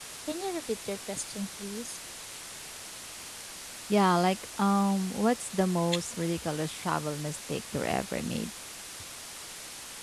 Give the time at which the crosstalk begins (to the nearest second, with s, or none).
none